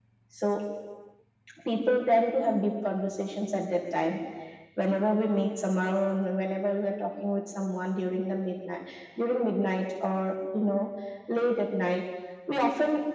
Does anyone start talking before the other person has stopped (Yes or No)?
No